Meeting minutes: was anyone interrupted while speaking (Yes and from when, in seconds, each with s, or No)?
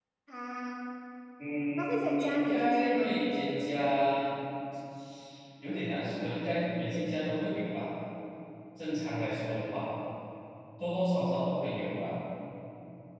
Yes, from 1.8 s